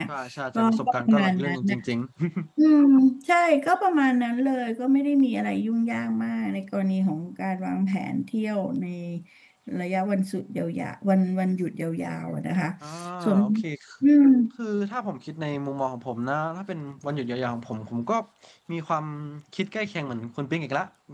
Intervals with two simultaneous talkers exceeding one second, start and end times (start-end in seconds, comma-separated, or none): 0.6-1.8